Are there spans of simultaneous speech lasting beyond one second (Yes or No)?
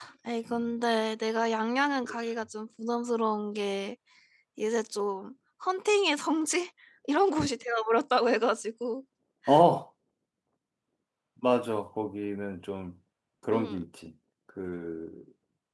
No